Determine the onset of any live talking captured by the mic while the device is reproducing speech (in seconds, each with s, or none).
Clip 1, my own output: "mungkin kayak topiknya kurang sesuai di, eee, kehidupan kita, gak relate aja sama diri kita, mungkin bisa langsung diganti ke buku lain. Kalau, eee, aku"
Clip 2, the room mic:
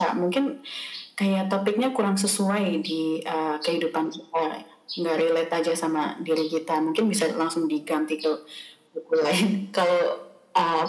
none